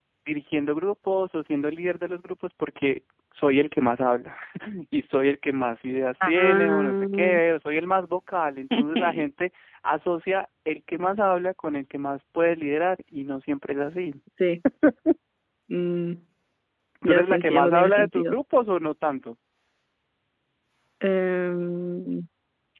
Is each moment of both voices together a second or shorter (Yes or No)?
No